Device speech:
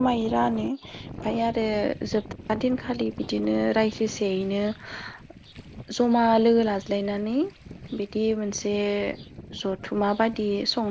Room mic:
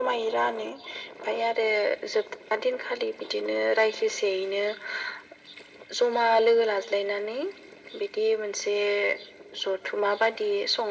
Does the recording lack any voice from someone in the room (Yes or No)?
Yes